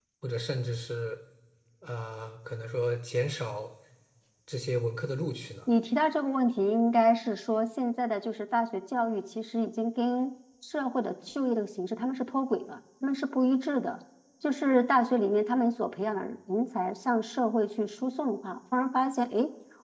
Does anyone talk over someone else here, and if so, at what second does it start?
none

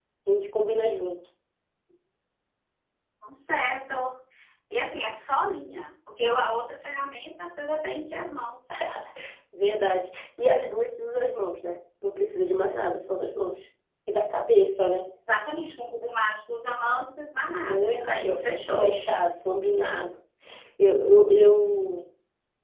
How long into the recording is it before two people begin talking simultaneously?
18 s

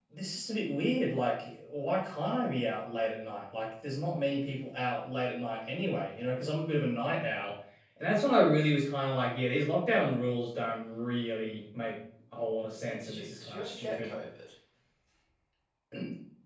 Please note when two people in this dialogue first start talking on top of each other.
13 s

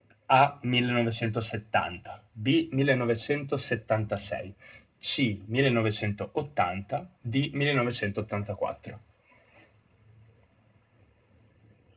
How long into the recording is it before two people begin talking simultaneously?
none

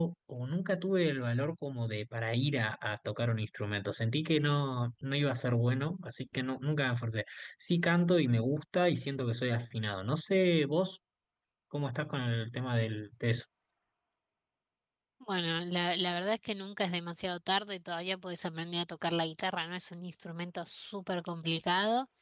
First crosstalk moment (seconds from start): none

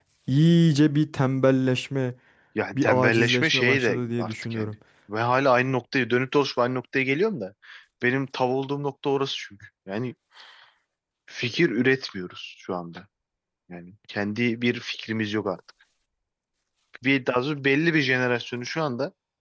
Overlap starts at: 3 s

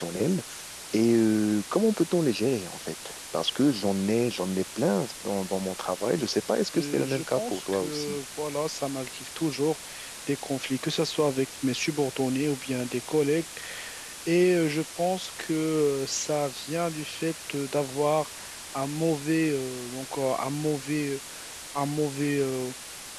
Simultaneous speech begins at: 7 s

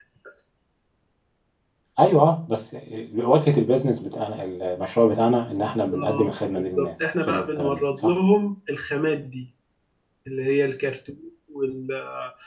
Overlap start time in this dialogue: 5 s

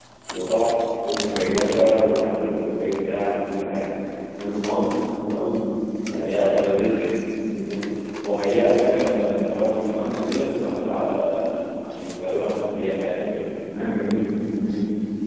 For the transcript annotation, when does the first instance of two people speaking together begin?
none

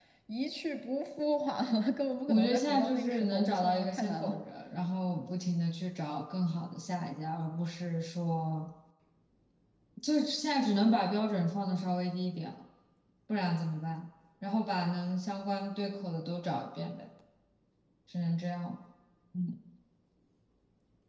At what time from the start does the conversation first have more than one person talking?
2 s

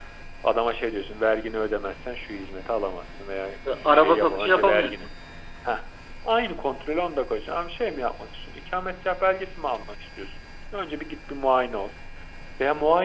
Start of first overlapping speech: 4 s

